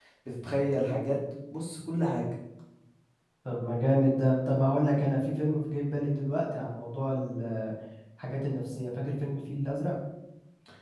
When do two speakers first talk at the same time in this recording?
none

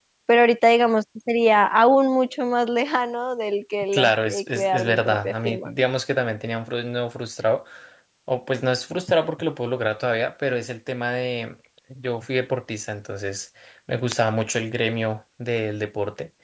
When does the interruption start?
3.9 s

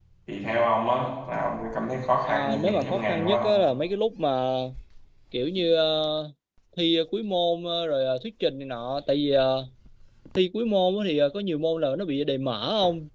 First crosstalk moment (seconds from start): 2.3 s

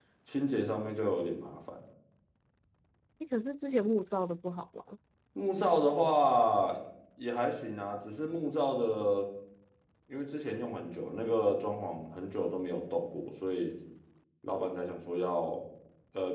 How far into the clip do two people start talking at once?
none

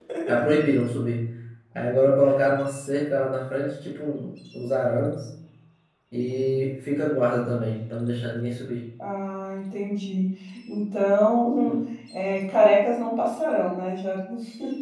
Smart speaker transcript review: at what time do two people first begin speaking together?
none

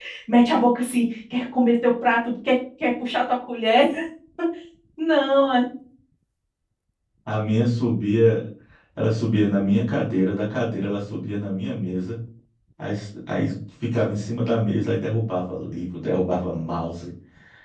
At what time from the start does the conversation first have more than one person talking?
none

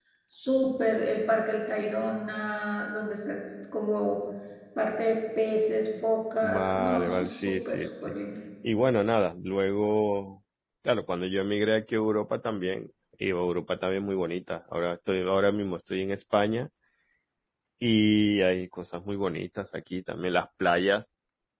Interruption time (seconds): 6.4 s

